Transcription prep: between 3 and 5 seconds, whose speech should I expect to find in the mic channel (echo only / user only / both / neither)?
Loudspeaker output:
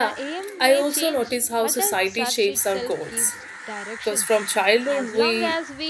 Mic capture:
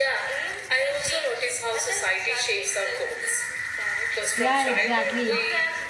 both